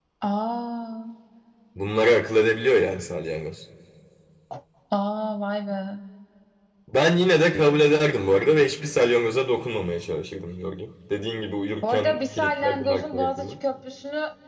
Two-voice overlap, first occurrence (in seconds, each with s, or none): 11.8 s